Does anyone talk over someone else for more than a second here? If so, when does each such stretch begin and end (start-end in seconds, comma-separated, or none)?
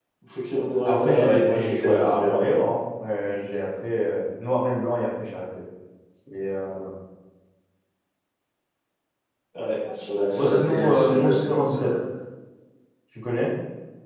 0.8-2.2, 10.3-11.9